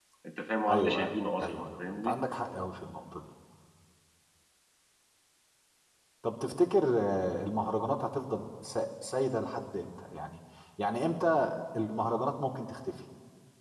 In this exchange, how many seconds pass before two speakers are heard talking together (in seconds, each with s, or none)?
0.7 s